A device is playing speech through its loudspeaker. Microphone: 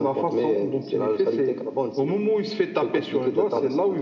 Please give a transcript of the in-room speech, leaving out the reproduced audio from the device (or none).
none